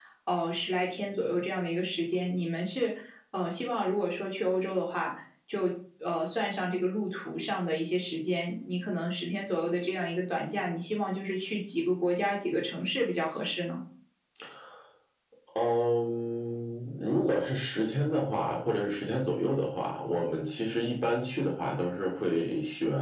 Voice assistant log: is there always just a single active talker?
Yes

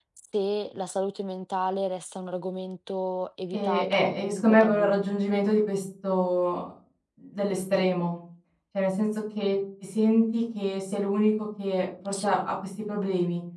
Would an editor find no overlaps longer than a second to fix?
No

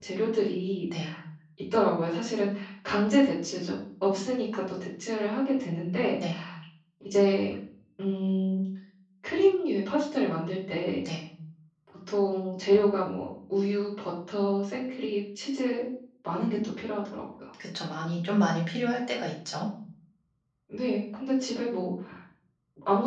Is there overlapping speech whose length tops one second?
No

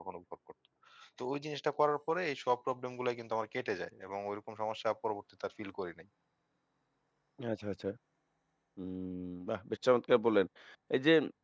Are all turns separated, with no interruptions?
Yes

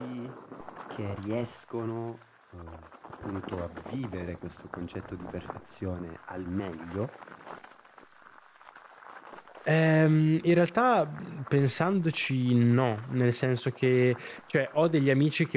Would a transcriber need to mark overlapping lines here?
No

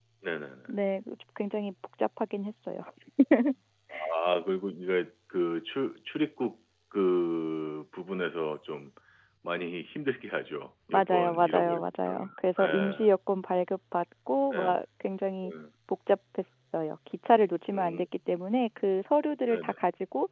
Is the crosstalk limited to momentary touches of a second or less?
No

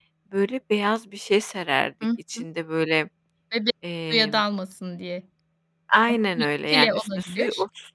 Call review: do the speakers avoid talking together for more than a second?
No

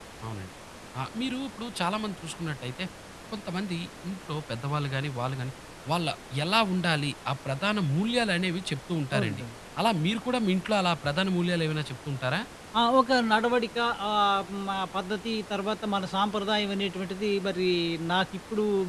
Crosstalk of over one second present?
No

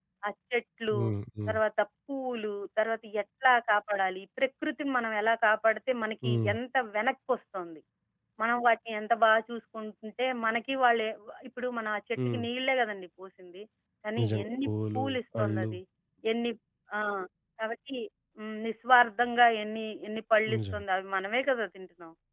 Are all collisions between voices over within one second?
No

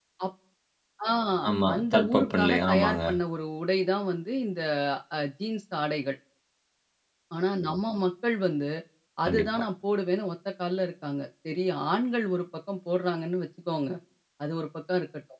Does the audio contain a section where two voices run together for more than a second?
Yes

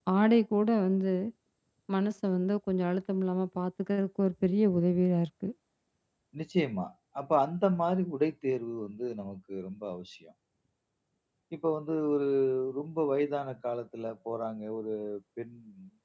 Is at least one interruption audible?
No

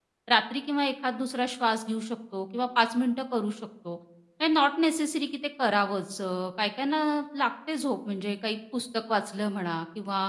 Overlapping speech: No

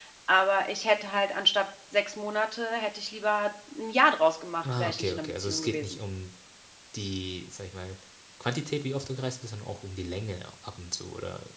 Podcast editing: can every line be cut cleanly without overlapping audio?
No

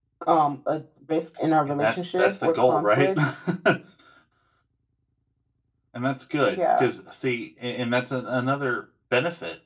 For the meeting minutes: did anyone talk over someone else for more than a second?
Yes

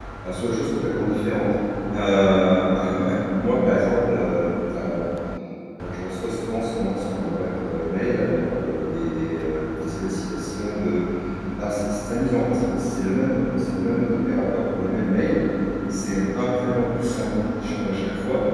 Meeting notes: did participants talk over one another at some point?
No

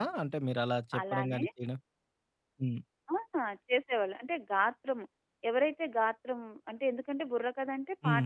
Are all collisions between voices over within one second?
Yes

